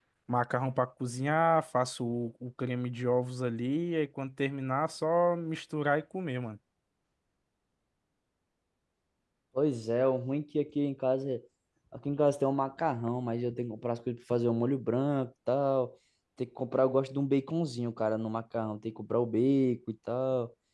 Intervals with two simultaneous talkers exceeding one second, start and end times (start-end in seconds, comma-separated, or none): none